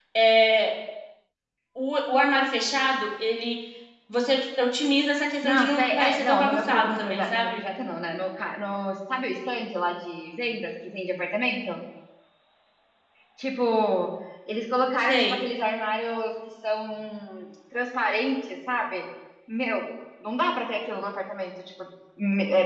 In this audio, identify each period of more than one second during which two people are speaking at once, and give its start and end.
5.4-7.6

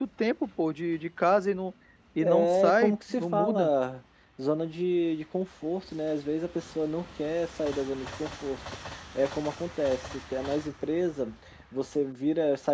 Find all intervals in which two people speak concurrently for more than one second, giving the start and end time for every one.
2.2-3.7

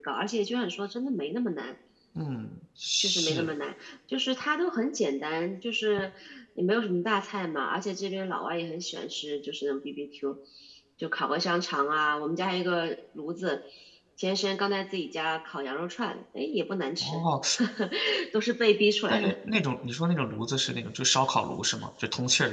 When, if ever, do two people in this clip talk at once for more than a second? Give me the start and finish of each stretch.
none

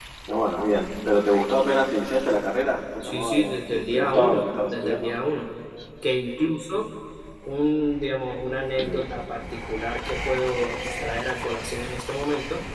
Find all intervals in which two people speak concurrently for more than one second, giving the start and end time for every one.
3.1-5.1

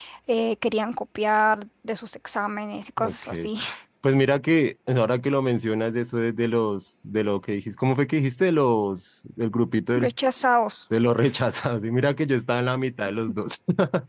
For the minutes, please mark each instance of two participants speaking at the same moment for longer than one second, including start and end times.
none

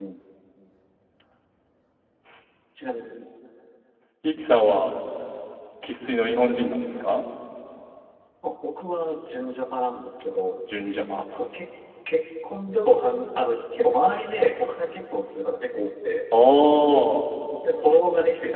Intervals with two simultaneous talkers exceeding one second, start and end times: none

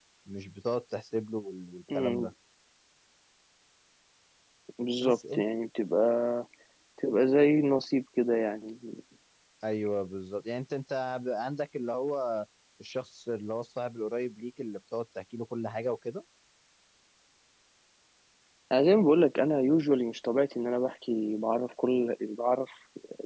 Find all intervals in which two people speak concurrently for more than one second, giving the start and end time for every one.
none

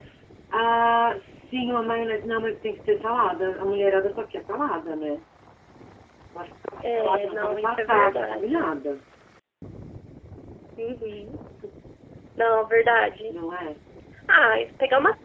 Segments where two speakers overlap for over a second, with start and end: 7.0-8.7

